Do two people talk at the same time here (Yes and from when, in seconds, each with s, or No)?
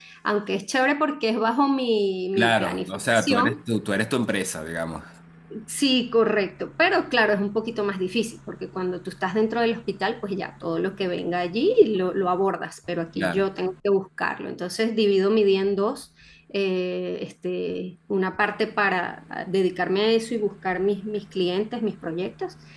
Yes, from 2.4 s